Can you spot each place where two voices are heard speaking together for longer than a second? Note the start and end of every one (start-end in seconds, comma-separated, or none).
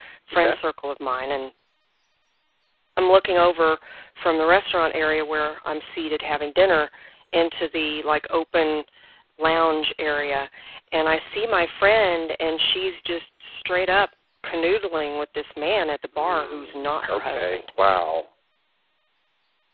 16.2-17.6